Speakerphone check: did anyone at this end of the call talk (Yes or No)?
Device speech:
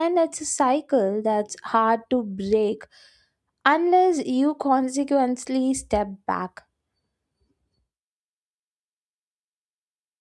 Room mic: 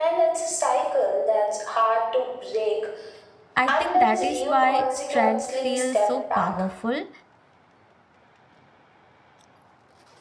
Yes